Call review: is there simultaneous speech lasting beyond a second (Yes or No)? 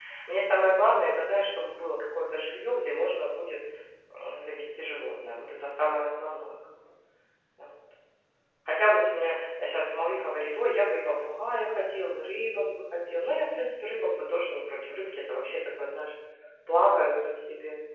No